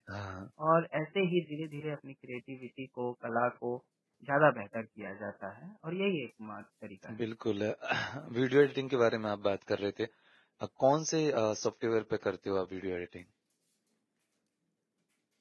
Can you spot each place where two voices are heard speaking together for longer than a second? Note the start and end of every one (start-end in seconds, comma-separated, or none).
none